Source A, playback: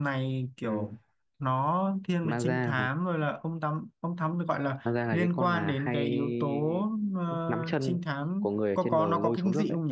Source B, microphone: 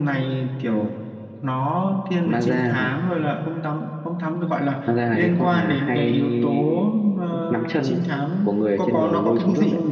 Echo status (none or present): present